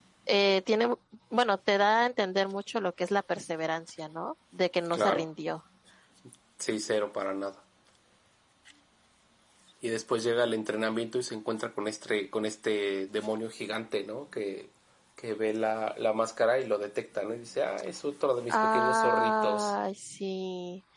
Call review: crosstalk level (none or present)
present